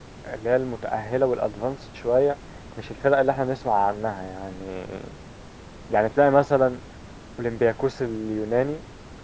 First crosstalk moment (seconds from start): none

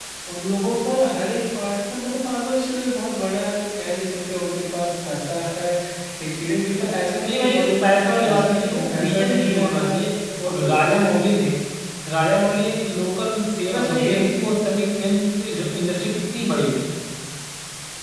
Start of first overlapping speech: 7.3 s

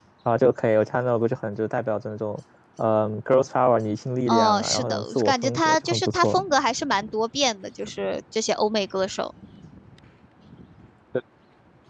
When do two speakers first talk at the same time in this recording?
4.3 s

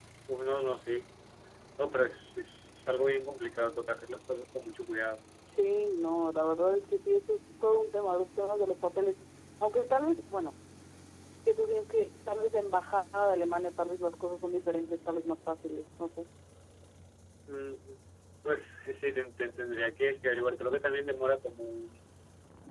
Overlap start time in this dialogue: none

